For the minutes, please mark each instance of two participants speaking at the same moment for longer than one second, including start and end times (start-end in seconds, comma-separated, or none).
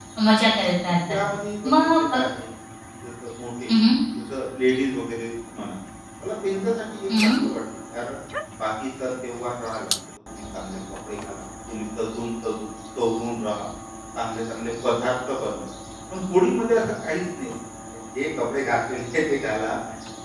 none